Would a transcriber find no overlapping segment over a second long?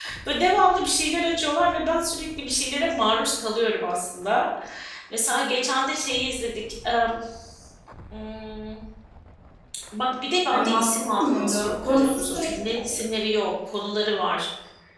No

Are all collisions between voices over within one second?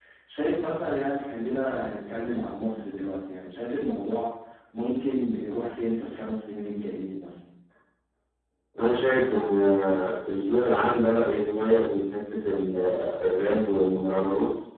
Yes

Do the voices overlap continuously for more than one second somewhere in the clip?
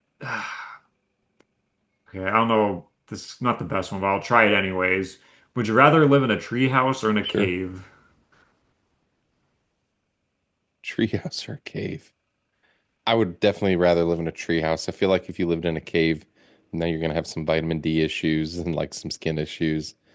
No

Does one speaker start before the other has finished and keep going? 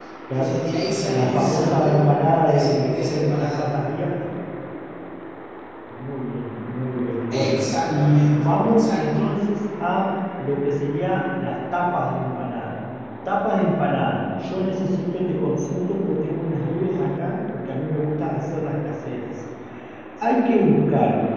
Yes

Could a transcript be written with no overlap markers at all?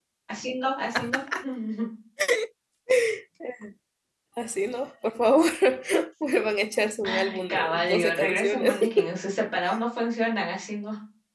No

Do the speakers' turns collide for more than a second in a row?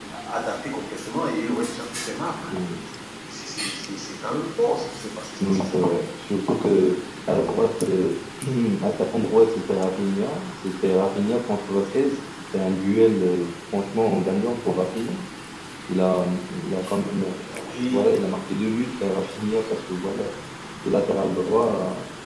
No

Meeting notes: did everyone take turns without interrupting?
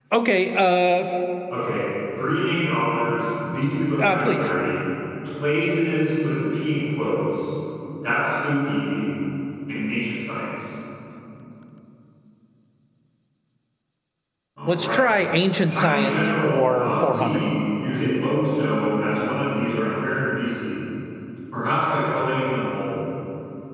No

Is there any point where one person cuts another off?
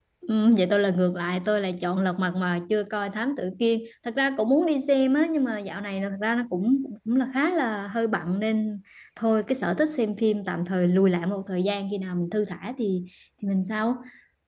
No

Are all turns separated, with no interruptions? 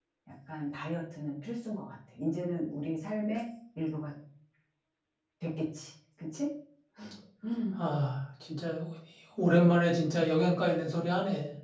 Yes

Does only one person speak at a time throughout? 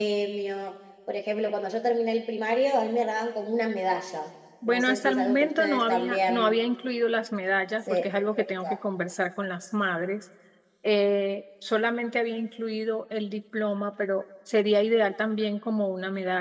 No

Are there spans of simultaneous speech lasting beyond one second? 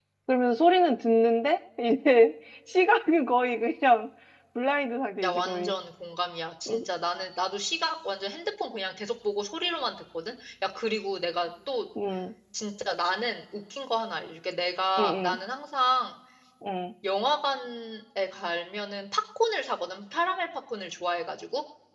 No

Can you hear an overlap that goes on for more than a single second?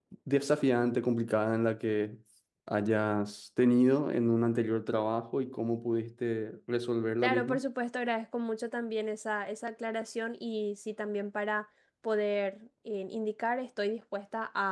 No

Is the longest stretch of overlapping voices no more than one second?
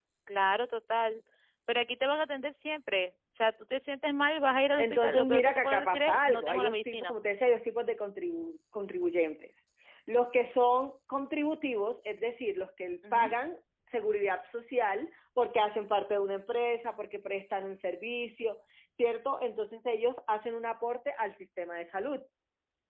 No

